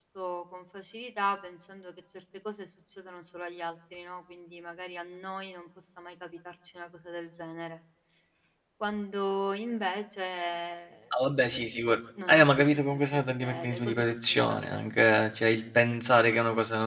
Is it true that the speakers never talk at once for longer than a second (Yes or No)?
No